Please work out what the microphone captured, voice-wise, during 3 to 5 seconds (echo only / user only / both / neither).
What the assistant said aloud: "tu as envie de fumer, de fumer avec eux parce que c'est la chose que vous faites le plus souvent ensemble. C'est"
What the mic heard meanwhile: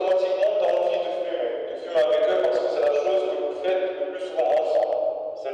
echo only